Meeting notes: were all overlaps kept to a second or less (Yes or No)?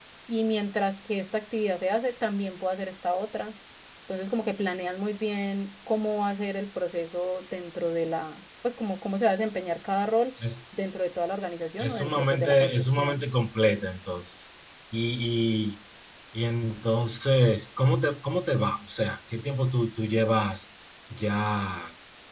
No